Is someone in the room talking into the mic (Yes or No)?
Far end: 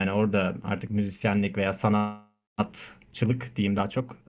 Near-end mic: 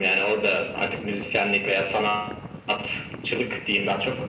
No